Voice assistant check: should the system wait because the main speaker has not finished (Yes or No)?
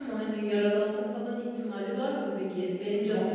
No